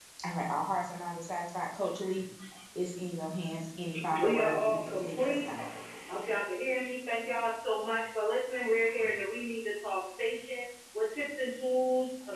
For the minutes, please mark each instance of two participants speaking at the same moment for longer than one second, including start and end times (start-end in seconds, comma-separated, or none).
4.2-5.4